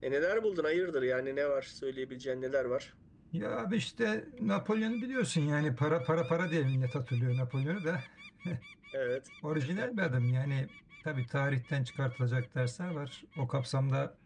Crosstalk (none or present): none